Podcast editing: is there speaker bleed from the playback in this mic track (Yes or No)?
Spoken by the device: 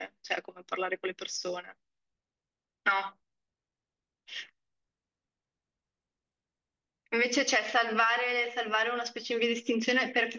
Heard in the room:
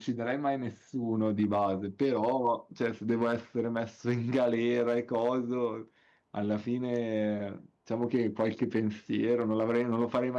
No